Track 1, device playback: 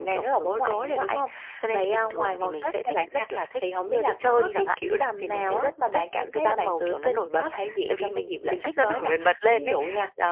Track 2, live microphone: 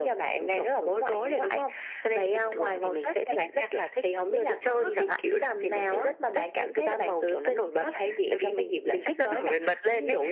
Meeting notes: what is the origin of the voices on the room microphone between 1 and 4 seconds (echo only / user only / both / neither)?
echo only